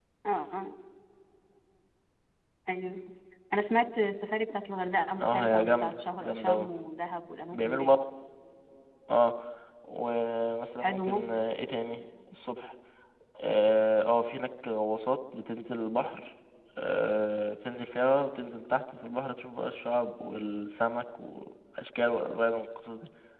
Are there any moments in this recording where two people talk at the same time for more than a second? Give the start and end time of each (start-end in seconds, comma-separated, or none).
5.2-6.7